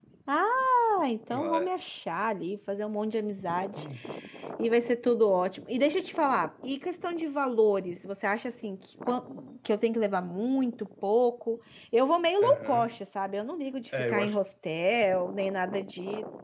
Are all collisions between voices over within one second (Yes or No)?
Yes